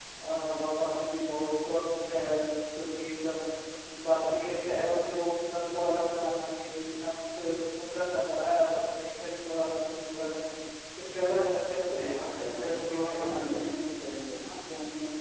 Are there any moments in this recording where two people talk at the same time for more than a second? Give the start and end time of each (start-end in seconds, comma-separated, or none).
12.0-13.8